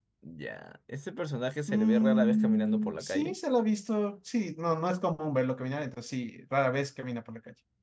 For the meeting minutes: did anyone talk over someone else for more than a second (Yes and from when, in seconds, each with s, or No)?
Yes, from 1.7 s